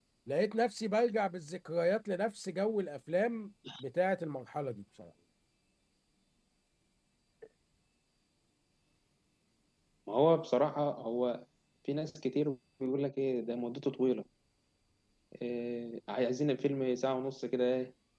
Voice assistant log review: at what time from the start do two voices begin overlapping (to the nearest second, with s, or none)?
none